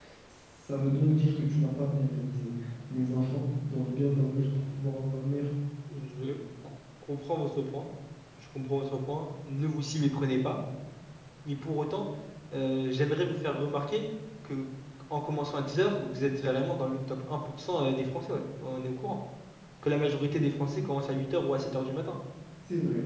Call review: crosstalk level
none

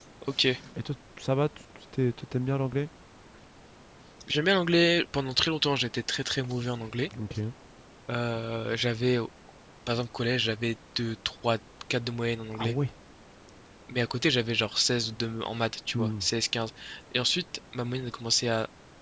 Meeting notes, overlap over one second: none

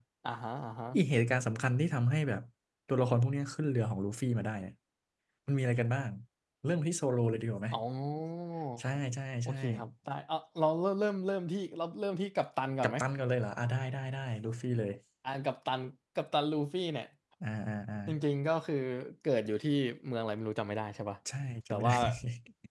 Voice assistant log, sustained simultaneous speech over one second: none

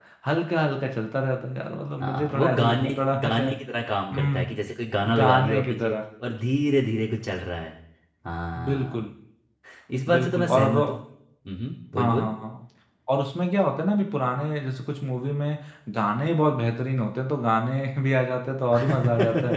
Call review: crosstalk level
present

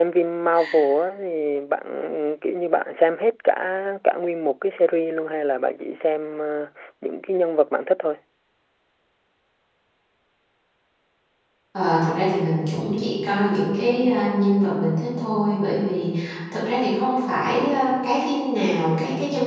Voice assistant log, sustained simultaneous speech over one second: none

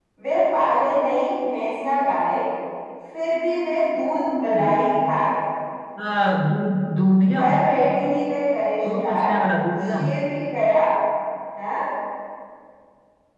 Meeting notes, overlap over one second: none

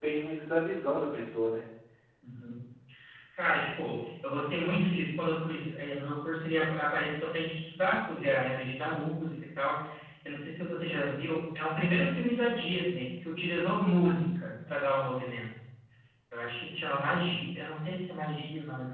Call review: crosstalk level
none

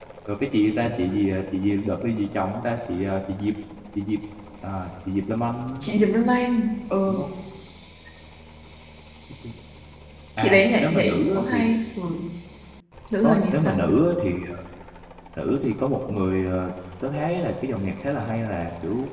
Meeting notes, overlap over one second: present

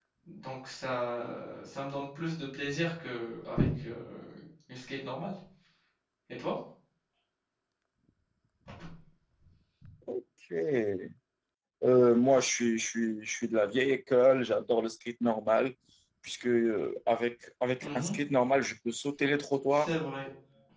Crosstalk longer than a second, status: none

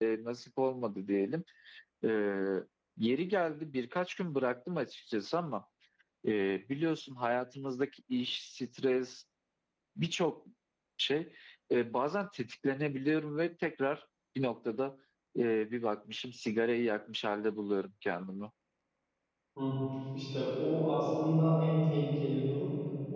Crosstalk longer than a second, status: none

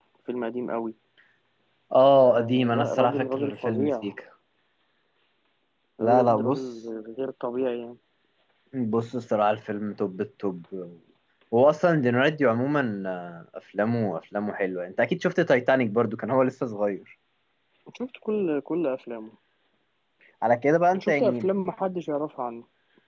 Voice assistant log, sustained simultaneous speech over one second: present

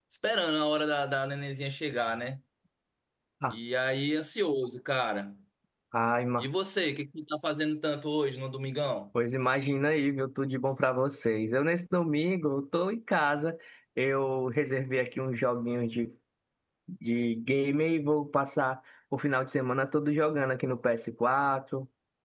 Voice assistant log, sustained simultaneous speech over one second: none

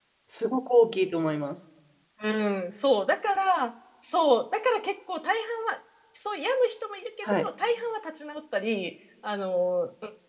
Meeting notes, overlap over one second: none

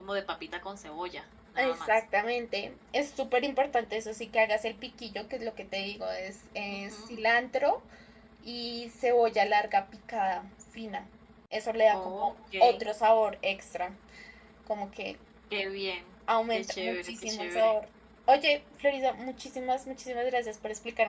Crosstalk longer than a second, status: present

